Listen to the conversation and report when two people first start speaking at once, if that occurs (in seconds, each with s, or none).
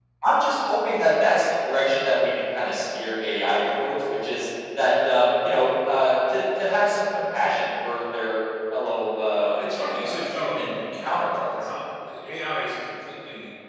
9.4 s